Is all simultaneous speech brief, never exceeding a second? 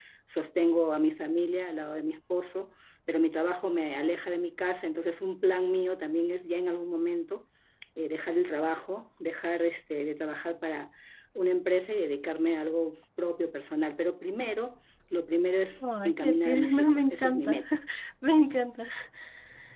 No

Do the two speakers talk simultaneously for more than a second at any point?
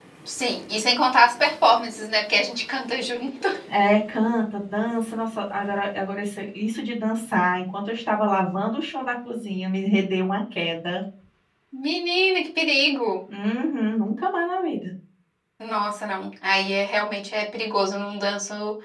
No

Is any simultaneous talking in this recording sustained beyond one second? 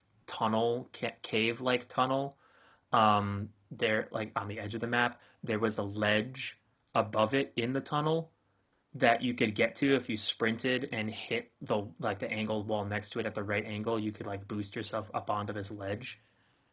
No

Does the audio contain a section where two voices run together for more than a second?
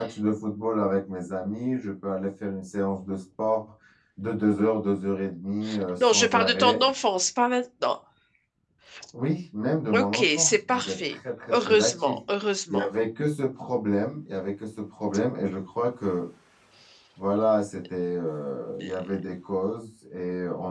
Yes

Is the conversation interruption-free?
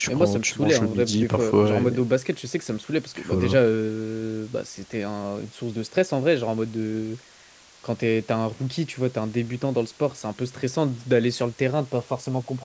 No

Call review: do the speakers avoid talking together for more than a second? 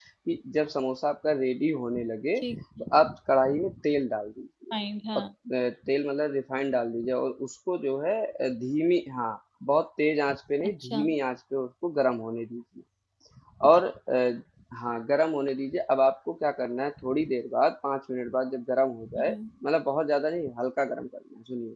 Yes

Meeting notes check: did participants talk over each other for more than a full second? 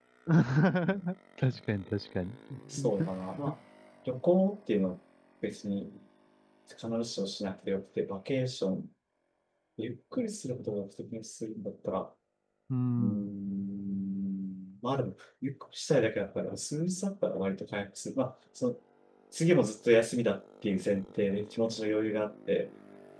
No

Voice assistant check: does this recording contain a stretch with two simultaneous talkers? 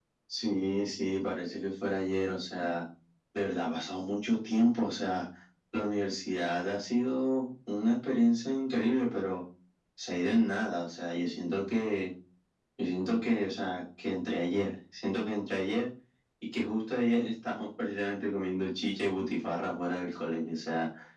No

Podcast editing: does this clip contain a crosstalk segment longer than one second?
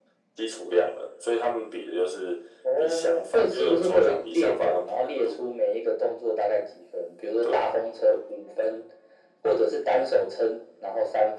Yes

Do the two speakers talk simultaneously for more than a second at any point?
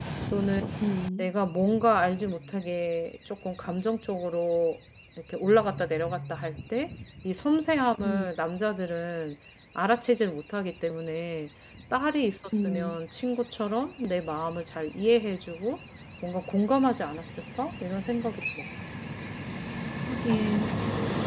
No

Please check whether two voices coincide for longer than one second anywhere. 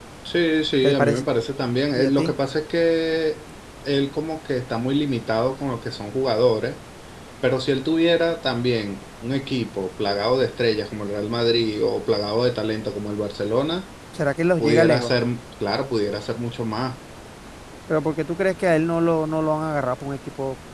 No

